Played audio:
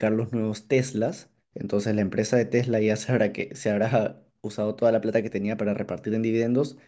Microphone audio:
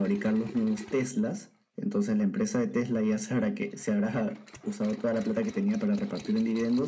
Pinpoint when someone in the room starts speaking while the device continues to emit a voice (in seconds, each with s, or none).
none